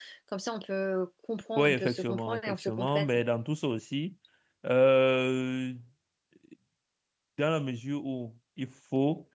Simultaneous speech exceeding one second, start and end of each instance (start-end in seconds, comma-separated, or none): 1.6-3.1